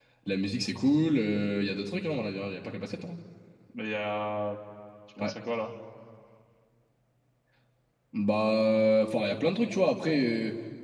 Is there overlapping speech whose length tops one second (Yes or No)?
No